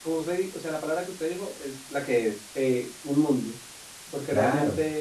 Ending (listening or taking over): listening